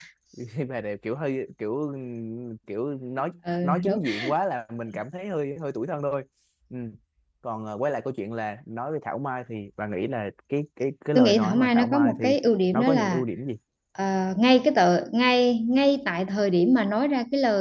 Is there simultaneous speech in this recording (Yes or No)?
Yes